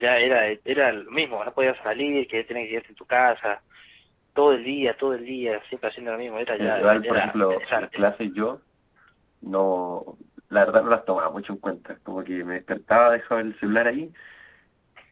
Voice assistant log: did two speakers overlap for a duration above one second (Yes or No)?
Yes